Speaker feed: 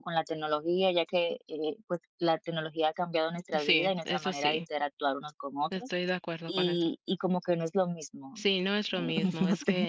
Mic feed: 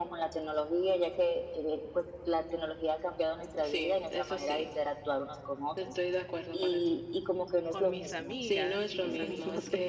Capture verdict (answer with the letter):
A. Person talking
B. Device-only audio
A